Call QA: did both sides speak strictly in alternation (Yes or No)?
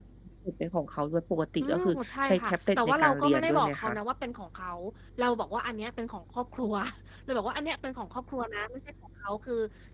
No